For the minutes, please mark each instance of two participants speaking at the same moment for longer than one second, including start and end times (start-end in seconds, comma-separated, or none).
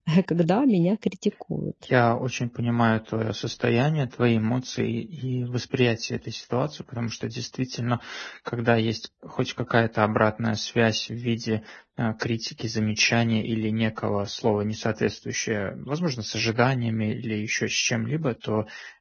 none